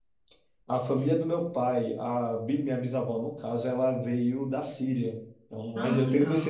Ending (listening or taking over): listening